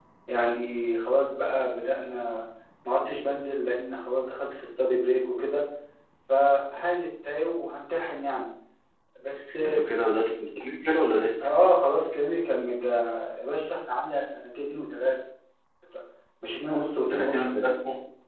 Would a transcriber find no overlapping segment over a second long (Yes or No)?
Yes